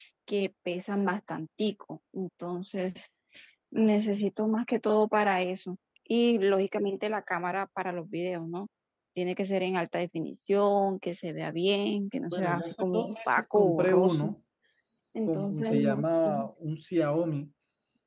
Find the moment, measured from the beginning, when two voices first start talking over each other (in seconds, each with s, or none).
12.3 s